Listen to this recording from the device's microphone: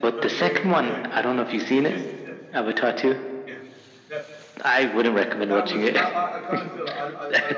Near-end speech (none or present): present